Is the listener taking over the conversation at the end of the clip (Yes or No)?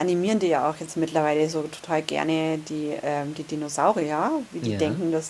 No